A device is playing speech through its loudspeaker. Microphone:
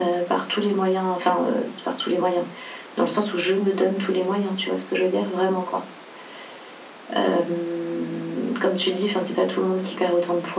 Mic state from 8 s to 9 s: echo only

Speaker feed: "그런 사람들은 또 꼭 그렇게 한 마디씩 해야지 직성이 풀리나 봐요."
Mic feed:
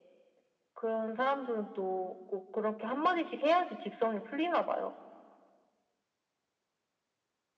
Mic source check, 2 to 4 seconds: echo only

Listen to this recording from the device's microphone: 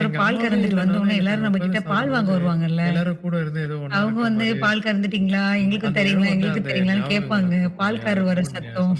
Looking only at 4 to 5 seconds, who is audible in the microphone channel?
echo only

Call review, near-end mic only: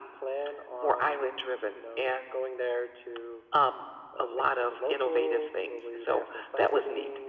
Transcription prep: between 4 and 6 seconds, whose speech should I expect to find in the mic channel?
echo only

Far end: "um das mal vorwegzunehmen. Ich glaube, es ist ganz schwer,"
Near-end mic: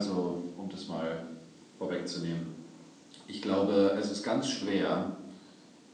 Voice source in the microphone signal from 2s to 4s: echo only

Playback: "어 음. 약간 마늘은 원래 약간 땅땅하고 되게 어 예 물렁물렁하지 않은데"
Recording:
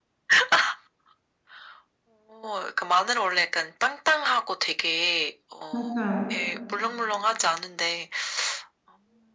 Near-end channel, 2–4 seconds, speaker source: echo only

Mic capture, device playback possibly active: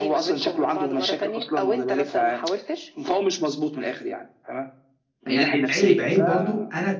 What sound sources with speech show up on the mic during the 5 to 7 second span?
both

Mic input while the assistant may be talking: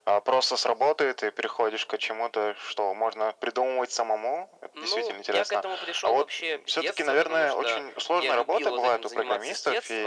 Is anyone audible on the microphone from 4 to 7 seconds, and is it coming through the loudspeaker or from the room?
echo only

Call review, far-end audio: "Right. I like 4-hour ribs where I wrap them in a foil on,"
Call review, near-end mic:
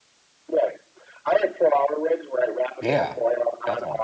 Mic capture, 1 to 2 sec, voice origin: echo only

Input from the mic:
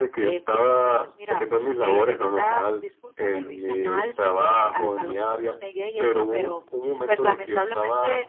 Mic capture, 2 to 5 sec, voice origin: both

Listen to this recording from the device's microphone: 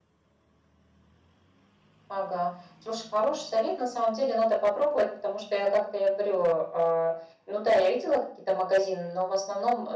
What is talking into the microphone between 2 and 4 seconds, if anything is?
echo only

